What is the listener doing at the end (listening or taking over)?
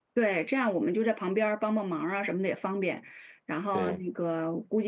listening